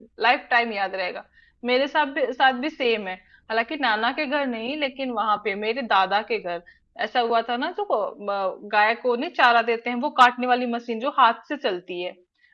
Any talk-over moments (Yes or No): No